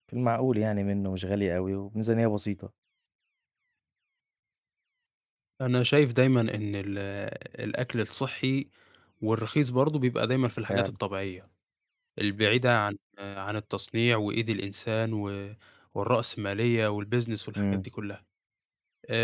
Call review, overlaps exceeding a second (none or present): none